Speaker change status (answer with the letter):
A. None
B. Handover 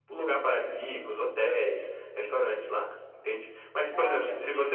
A